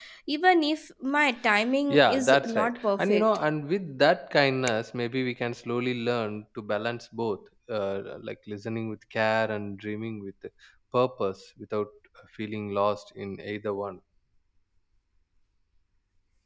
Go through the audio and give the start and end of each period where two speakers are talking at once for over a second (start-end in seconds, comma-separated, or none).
1.9-3.3